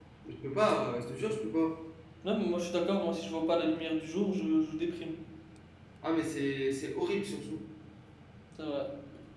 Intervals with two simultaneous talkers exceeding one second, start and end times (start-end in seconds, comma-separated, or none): none